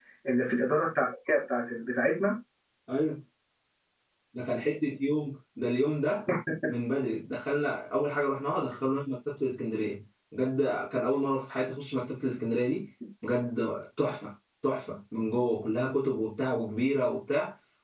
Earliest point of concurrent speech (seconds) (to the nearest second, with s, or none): none